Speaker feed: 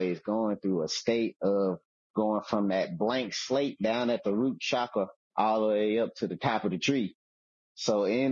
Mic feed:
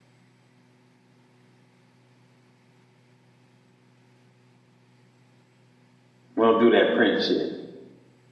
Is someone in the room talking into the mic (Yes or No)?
Yes